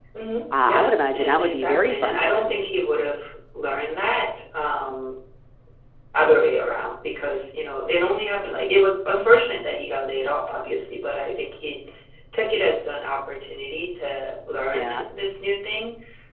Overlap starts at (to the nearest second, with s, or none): 1 s